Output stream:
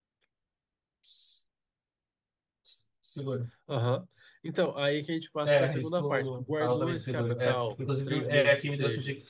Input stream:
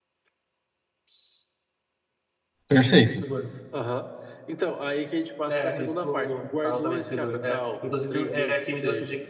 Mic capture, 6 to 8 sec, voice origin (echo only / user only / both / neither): echo only